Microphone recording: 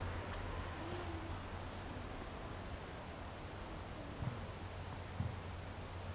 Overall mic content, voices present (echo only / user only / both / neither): neither